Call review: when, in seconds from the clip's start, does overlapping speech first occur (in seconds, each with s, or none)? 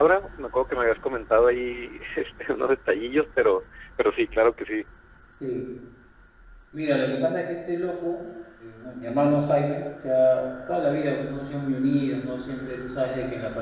none